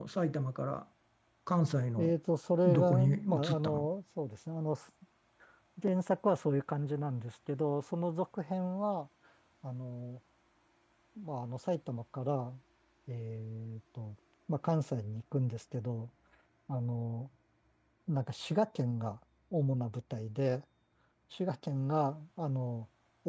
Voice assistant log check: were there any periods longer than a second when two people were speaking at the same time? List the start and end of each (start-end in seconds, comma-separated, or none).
2.6-3.9